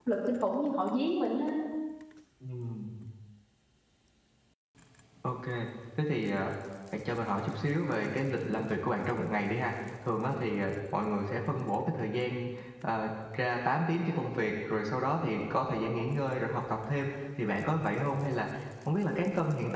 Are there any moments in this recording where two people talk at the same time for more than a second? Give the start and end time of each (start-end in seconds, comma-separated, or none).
none